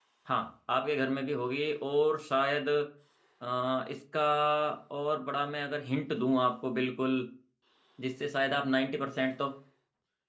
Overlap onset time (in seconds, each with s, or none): none